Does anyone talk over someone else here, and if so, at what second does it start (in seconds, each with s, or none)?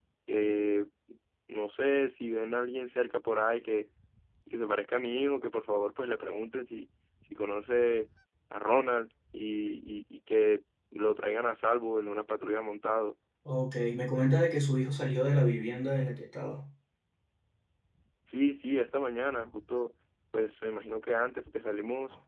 none